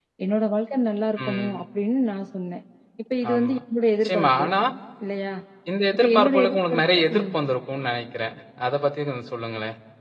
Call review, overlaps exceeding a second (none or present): present